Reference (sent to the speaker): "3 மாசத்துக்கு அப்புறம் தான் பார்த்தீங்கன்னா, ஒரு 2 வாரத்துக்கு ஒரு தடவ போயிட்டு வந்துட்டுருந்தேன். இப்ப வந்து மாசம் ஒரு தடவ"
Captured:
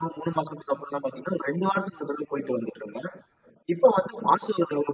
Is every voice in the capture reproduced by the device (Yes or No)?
Yes